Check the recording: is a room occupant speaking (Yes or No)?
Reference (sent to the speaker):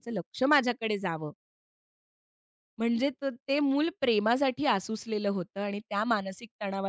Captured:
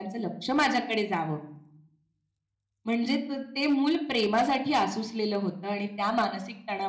No